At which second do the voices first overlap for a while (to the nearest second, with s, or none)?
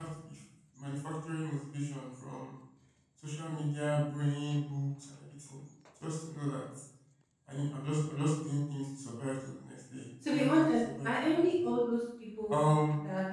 10 s